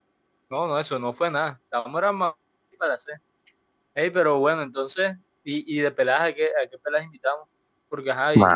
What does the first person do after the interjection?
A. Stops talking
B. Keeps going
B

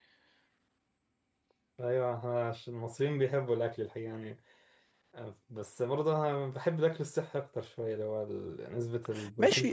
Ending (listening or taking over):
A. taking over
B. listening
A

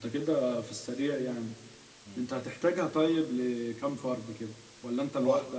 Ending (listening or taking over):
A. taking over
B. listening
A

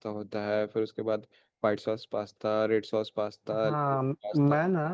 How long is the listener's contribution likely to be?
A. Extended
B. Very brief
A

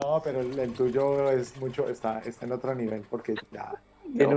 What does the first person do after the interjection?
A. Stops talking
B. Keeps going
B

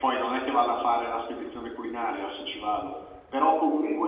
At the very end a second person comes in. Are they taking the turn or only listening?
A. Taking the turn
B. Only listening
B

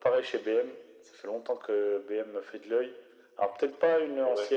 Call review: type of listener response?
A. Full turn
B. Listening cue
B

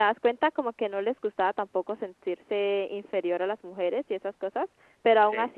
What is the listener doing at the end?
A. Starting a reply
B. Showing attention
B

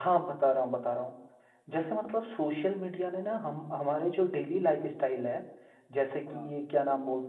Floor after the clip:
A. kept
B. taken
A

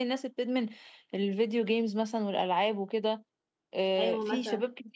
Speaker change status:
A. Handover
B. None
B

